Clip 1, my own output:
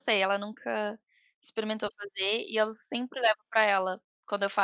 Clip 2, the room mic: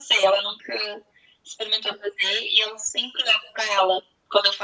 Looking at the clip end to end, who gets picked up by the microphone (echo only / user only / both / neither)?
echo only